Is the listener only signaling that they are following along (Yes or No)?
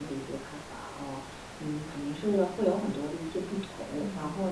Yes